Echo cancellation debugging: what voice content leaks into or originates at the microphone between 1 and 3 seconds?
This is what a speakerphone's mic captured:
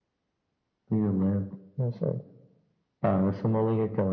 echo only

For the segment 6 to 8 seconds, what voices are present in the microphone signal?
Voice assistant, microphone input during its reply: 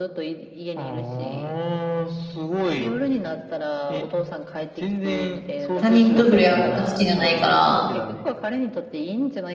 both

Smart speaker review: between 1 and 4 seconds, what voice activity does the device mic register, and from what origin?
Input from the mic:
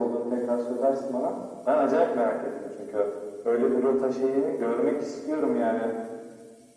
echo only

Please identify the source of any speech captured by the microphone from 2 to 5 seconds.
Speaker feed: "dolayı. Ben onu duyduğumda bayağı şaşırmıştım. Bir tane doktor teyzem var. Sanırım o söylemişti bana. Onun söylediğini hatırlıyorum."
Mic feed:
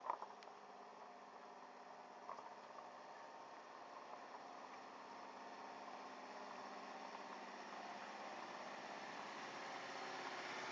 neither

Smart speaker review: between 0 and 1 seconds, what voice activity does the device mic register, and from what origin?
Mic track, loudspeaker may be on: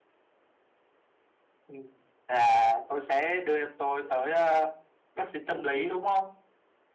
neither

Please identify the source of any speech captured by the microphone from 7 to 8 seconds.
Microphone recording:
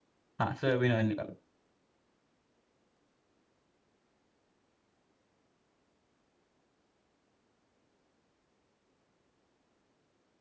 neither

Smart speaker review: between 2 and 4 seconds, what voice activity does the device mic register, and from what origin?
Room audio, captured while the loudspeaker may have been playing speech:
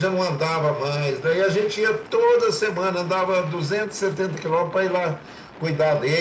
echo only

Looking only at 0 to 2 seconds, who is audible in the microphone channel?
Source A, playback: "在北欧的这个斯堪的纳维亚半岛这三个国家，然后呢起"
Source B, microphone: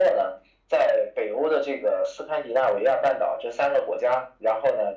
echo only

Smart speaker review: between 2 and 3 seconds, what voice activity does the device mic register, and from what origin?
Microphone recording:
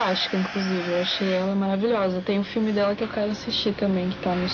echo only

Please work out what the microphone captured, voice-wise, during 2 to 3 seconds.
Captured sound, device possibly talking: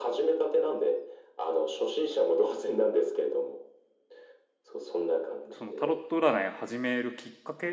echo only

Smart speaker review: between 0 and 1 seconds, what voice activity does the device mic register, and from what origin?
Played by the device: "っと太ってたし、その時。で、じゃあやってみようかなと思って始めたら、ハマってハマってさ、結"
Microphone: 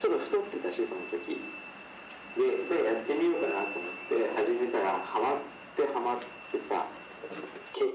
echo only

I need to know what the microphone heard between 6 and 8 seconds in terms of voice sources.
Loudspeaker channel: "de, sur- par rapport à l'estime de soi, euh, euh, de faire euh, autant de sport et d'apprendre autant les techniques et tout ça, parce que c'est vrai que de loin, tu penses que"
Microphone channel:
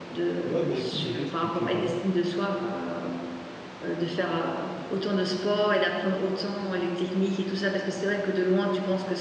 echo only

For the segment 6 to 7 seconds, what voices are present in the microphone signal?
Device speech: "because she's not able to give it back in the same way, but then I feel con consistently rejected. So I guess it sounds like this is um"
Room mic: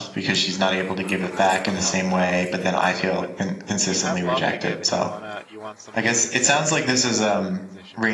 both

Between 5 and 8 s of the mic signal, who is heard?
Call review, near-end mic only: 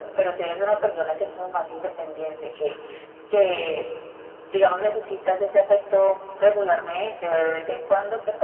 echo only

